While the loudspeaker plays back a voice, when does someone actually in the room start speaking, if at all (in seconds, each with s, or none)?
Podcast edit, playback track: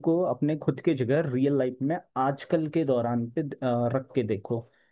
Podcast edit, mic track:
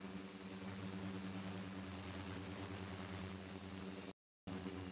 none